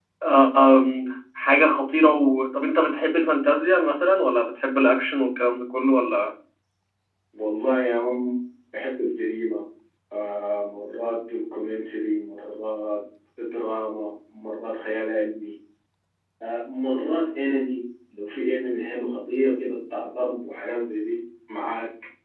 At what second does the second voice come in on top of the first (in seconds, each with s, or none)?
none